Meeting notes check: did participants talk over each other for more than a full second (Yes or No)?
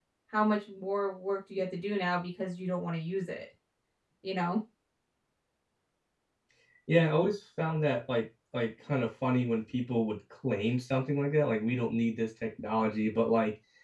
No